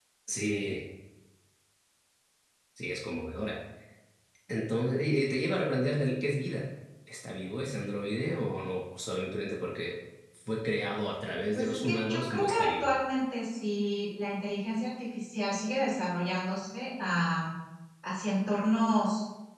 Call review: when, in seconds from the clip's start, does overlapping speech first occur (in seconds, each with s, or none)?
11.6 s